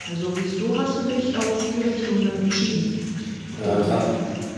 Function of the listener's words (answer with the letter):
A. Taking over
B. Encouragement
A